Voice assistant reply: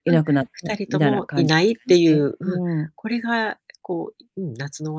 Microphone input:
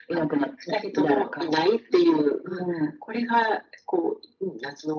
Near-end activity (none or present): none